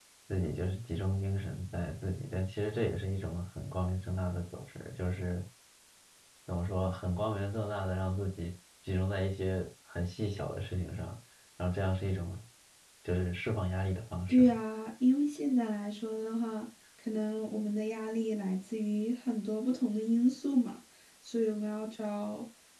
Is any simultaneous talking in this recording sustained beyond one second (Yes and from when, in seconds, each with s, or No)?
No